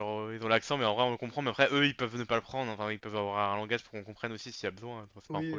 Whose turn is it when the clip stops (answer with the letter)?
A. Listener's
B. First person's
A